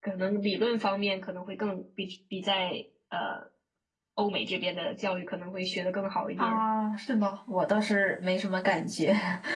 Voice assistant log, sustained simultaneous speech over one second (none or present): none